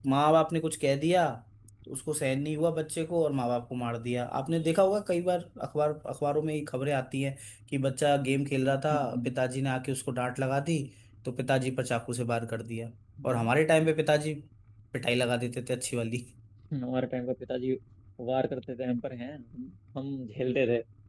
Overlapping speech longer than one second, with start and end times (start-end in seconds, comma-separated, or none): none